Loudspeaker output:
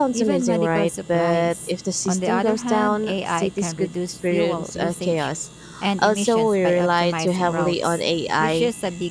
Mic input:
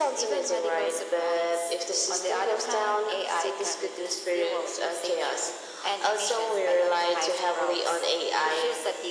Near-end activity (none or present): none